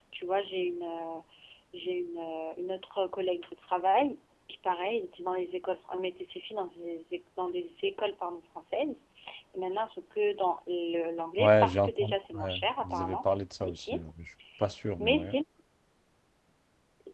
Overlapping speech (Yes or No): Yes